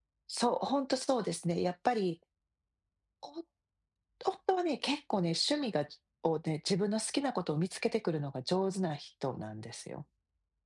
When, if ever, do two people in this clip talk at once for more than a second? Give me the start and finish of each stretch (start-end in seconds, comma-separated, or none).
none